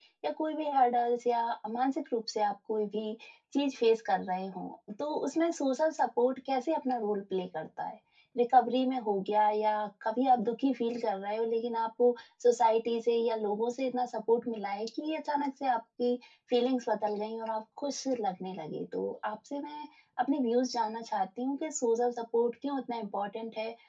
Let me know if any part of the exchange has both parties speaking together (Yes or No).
No